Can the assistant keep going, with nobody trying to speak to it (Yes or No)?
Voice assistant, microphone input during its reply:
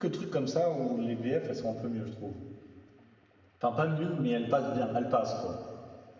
No